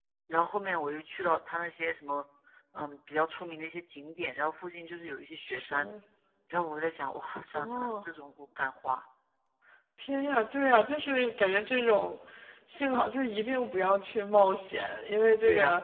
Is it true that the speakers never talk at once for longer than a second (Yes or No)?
Yes